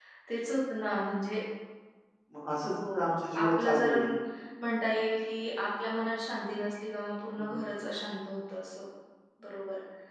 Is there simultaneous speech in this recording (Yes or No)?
Yes